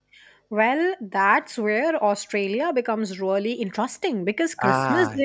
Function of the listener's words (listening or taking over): listening